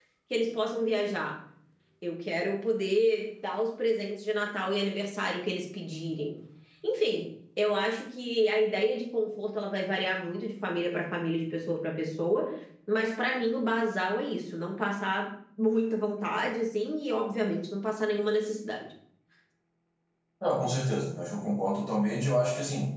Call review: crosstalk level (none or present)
none